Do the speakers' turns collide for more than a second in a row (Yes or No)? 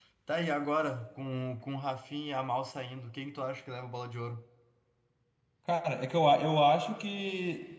No